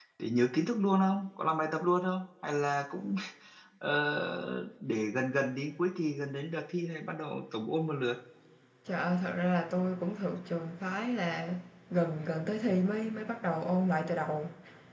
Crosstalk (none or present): none